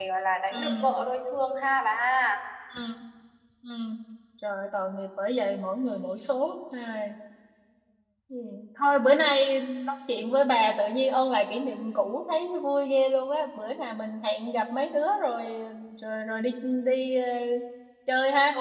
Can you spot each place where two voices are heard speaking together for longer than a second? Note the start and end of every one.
none

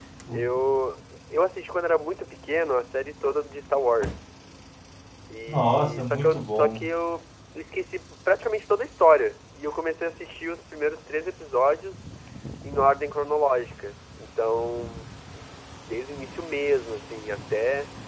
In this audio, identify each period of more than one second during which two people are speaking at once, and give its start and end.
5.5-6.9

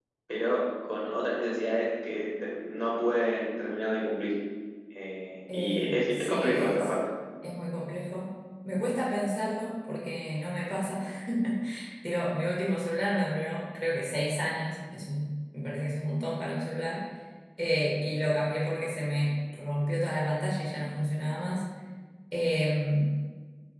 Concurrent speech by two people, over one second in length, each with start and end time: 5.5-7.0

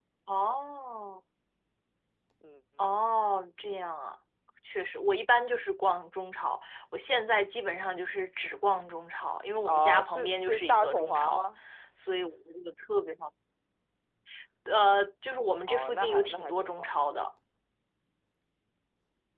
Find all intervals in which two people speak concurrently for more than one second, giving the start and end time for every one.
9.7-11.4, 15.7-16.9

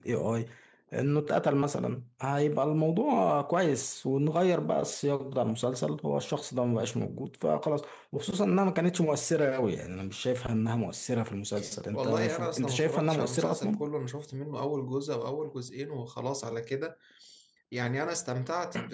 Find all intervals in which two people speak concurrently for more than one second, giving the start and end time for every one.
11.9-13.9

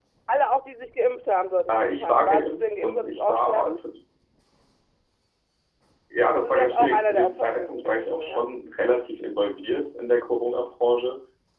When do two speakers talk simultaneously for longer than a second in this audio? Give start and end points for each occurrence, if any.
1.7-3.8, 6.3-8.4

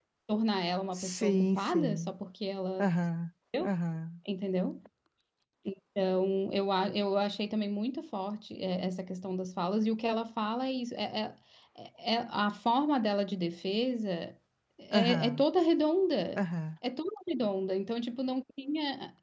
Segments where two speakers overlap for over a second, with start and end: 0.9-2.1

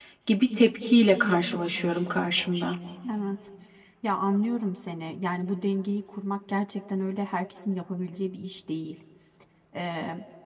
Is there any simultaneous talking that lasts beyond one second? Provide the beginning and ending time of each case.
none

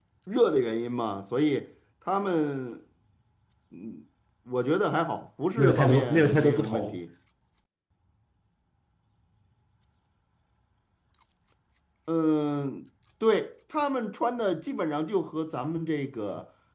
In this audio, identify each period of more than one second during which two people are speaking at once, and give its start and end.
5.6-7.0

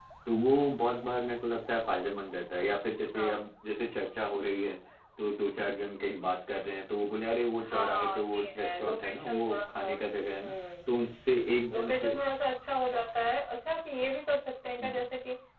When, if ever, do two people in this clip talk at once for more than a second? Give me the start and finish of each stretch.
7.6-9.9

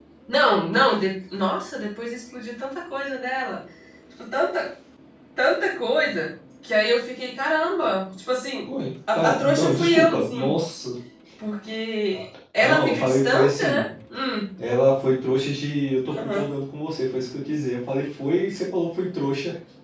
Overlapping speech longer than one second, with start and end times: 9.1-10.5, 12.6-13.9

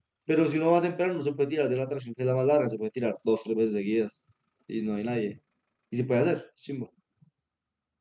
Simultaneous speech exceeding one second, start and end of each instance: none

